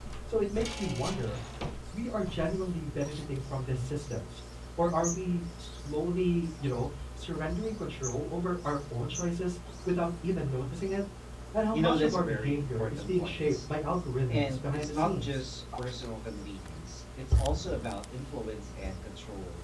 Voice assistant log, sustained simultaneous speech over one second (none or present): present